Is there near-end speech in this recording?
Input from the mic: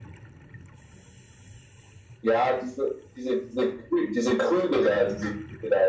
No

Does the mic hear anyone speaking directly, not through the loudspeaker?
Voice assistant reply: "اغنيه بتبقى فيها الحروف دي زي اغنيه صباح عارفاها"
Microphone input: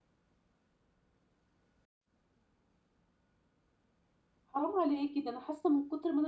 Yes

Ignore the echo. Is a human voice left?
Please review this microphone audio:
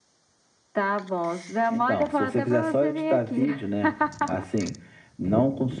No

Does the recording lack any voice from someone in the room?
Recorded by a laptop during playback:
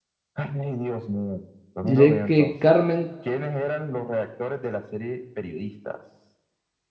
No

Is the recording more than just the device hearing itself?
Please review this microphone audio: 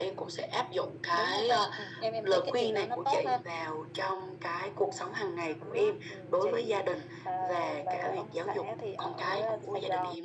No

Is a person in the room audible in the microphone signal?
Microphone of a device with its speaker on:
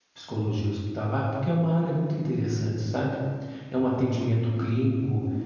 Yes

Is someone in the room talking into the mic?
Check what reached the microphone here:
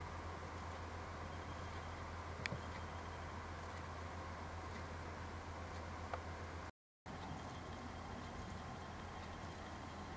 No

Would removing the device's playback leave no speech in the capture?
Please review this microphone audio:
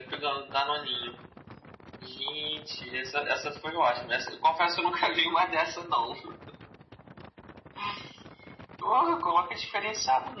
Yes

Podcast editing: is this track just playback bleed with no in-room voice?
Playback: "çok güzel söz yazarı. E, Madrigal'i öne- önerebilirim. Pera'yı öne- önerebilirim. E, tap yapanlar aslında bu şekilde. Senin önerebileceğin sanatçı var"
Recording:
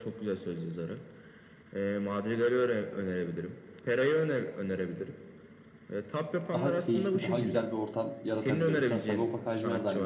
No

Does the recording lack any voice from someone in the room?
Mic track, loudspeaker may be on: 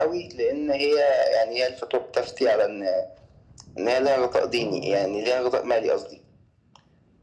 No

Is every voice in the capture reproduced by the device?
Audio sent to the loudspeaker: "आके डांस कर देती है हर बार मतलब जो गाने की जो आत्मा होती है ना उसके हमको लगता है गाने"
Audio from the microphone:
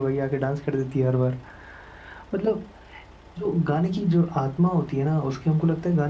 Yes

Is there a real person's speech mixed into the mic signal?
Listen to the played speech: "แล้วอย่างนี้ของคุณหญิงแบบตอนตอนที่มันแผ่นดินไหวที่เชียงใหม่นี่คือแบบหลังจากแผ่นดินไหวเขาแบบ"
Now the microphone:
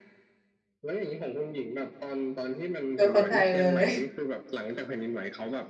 Yes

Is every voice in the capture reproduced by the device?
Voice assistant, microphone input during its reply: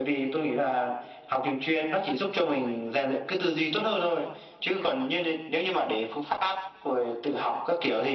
Yes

